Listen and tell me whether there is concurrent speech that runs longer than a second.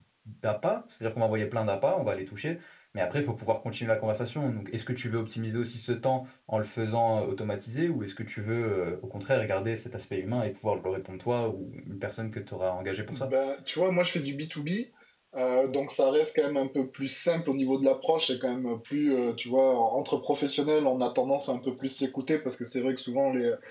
No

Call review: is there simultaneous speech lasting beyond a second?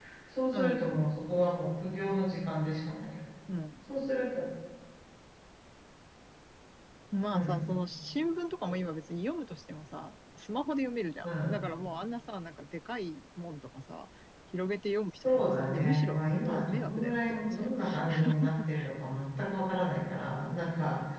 Yes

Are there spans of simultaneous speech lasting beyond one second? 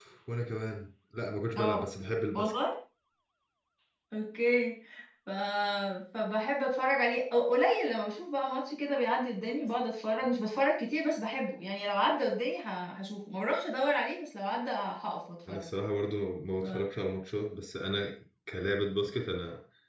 No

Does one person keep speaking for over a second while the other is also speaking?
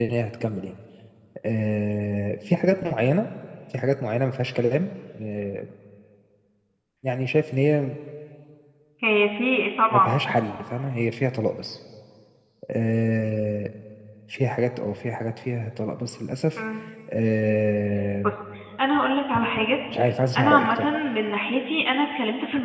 No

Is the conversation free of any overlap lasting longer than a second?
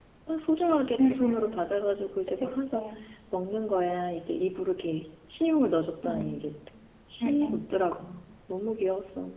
Yes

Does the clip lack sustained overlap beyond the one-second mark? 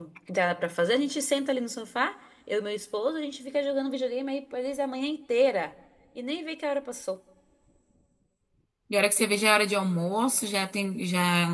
Yes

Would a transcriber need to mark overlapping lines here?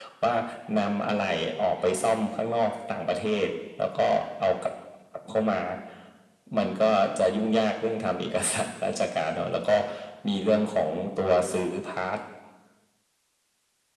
No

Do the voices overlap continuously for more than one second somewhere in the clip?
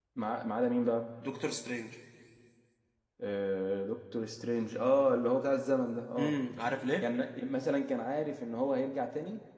No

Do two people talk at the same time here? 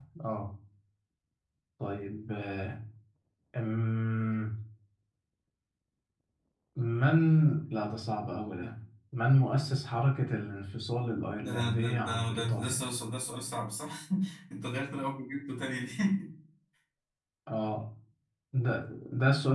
Yes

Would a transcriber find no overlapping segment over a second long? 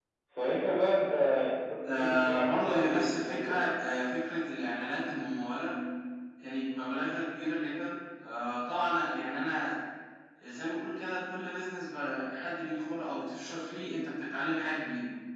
No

